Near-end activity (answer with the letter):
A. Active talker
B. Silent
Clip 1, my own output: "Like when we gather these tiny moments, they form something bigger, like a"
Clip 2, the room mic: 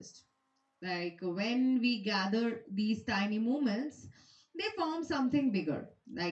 B